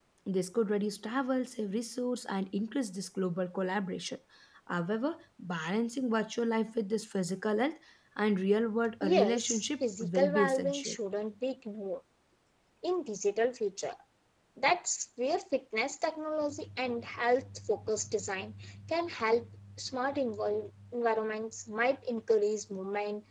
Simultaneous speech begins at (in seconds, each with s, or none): 9.0 s